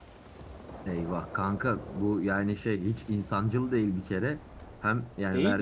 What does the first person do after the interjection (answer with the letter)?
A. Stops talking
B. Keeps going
B